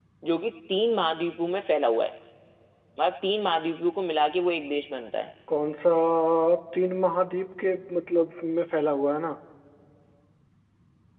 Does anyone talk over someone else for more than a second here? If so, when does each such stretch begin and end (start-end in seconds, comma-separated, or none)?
none